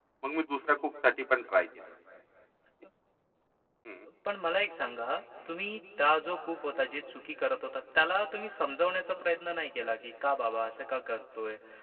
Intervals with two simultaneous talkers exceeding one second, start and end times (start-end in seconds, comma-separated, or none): none